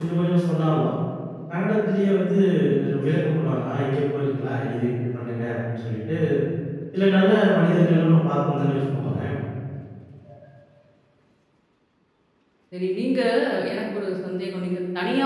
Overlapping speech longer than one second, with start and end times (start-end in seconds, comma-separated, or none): none